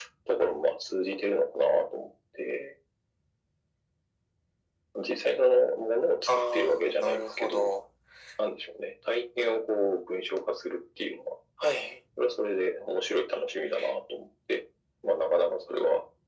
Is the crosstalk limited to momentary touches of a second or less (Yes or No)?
No